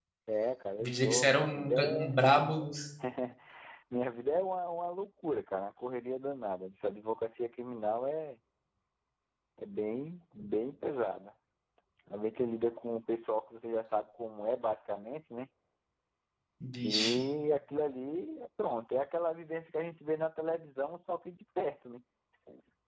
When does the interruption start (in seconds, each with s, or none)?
0.8 s